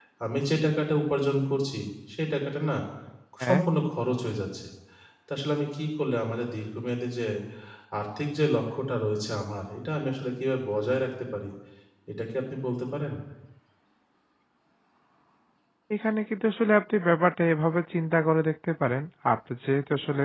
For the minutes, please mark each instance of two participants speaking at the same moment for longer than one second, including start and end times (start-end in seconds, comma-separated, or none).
none